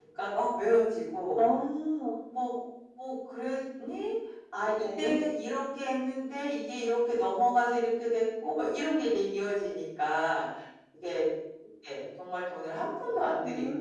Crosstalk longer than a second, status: none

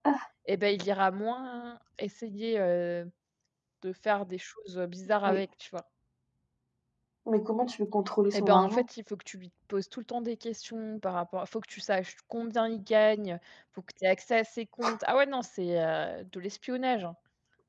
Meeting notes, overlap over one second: none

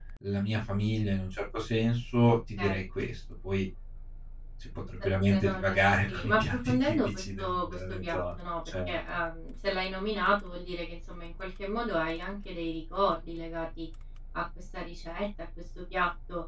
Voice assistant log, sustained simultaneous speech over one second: present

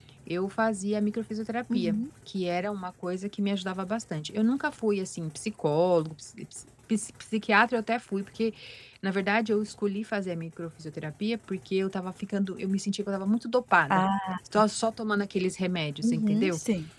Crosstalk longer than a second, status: none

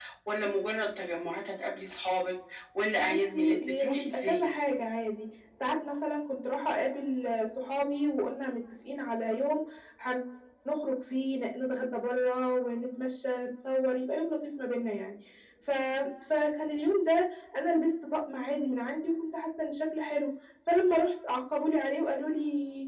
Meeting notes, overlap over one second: present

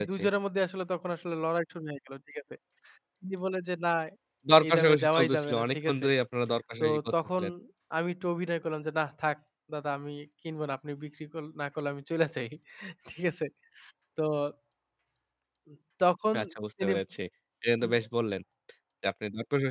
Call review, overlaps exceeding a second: present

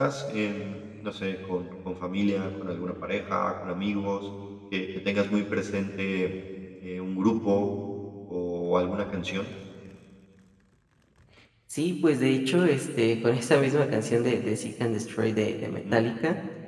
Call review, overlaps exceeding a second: none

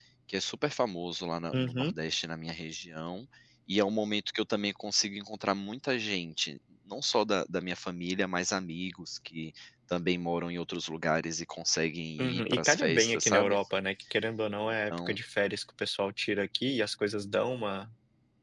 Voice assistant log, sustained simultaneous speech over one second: present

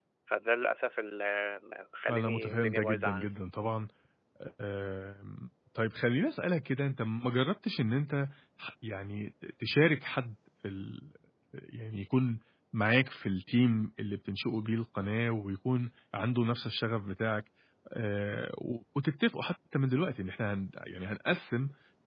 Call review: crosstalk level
present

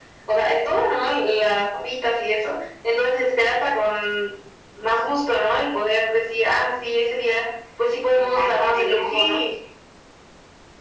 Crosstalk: present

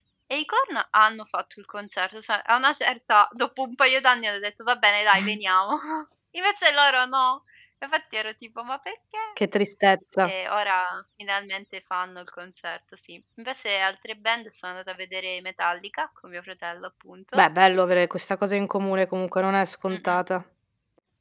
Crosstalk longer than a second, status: none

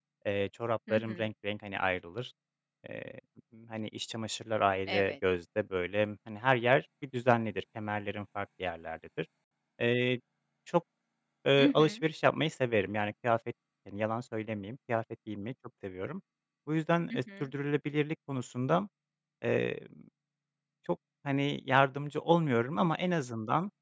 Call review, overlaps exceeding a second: none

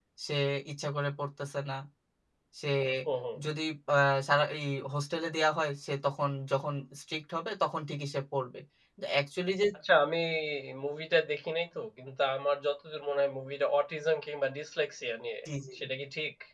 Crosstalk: none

